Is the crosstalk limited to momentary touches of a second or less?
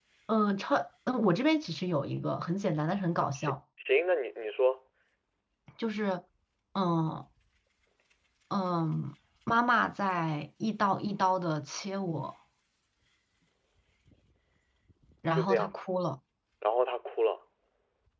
Yes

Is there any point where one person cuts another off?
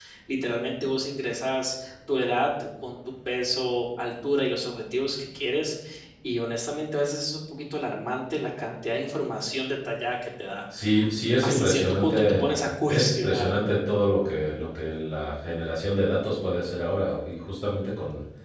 Yes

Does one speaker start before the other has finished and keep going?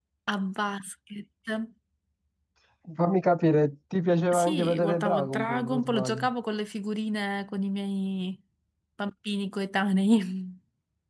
Yes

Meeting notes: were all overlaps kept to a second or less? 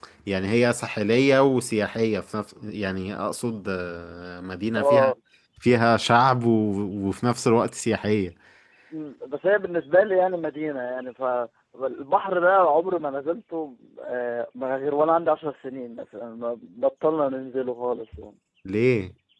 Yes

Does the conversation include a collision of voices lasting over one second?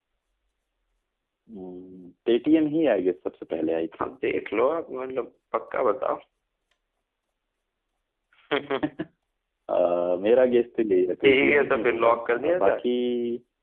Yes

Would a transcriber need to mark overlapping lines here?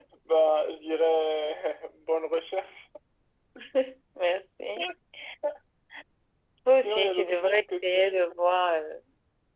Yes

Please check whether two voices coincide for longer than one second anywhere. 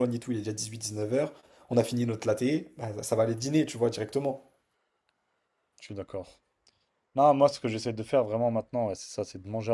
No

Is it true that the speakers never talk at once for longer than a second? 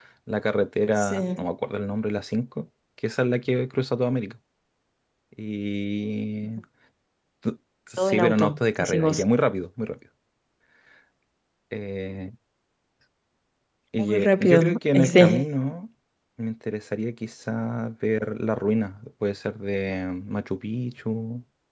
No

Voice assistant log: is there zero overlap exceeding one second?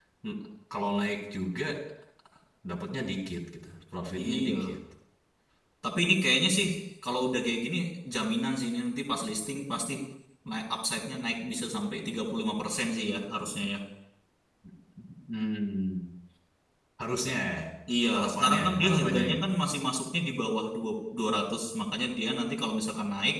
No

